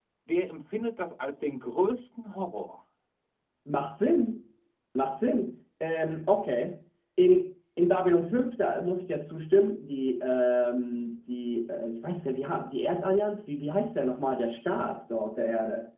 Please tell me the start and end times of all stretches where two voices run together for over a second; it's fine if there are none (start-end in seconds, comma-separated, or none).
none